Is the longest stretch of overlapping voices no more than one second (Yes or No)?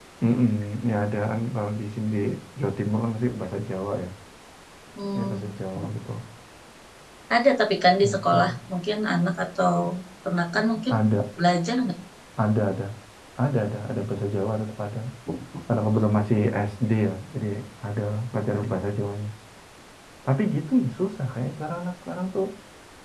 Yes